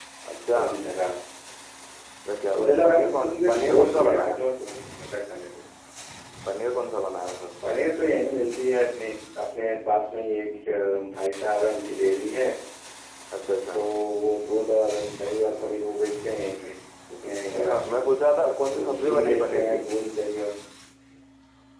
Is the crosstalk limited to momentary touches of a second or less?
No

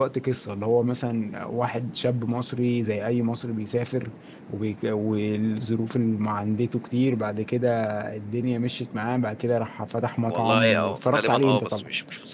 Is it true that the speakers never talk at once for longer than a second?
No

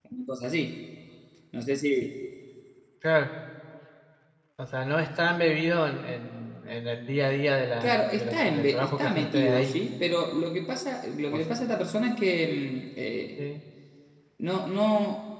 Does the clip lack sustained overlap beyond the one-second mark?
No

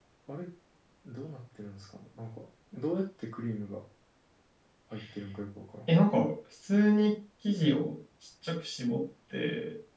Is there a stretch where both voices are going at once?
No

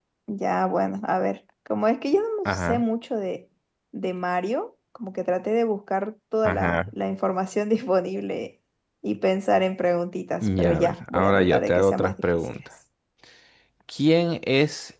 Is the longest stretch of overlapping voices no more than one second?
No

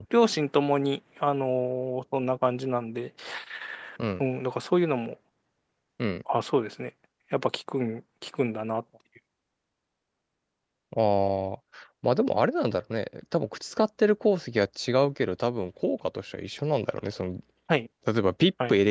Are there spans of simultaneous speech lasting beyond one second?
No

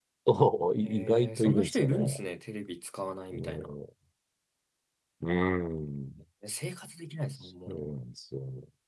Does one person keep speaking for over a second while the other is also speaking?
Yes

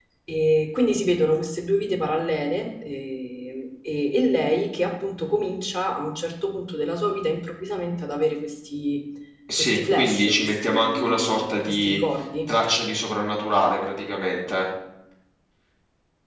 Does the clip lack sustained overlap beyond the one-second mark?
No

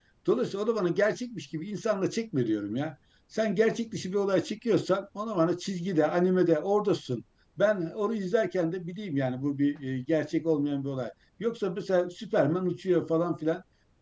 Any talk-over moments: No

